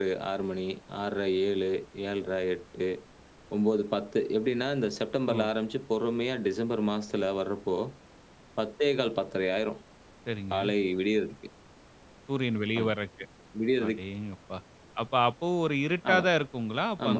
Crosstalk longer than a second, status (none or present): none